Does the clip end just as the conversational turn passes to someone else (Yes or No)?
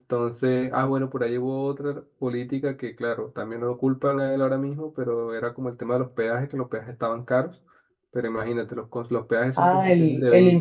Yes